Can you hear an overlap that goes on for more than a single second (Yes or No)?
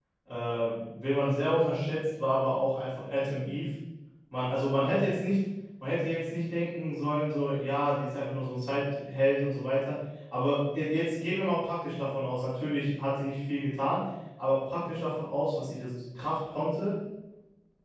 No